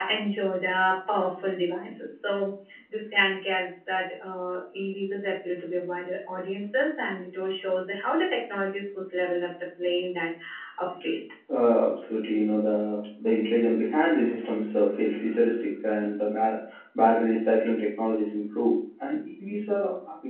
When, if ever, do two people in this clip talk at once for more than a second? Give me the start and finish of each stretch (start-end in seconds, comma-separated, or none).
none